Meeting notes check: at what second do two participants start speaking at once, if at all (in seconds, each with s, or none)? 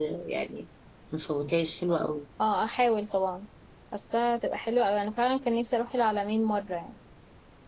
none